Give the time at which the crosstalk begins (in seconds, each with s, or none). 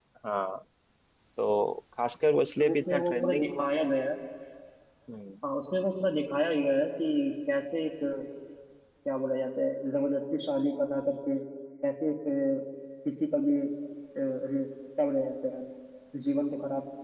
2.5 s